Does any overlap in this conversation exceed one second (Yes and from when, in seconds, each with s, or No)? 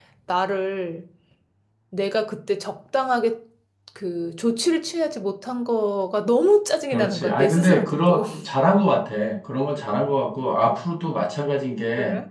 Yes, from 6.9 s